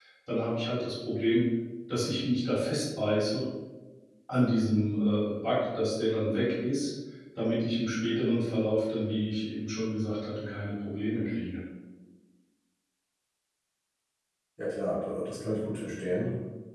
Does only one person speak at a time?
Yes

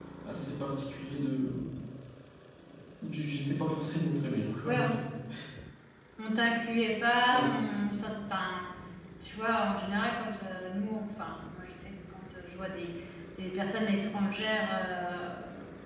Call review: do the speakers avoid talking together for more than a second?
Yes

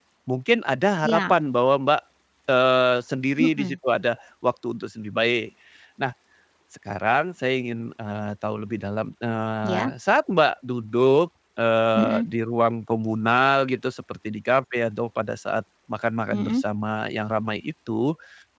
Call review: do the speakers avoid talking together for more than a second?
Yes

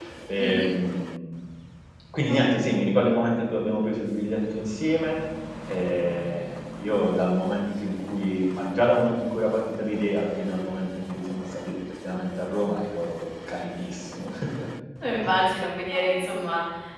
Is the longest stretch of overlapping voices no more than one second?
Yes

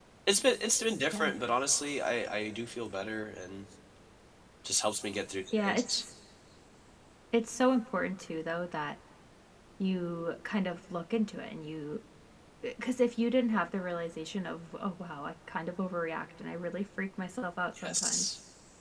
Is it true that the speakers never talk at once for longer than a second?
Yes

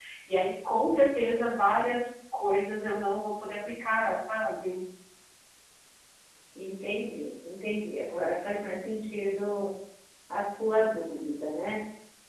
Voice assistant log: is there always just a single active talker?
Yes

